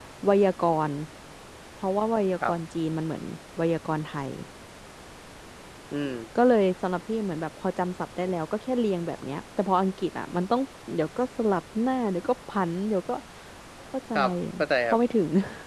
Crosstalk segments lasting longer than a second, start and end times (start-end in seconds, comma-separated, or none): none